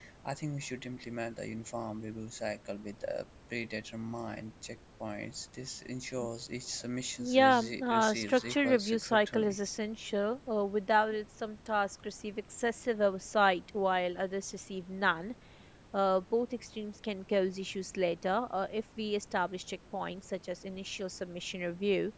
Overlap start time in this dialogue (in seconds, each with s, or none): 7.2 s